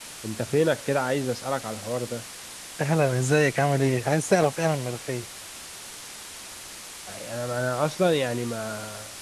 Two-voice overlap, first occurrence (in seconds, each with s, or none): none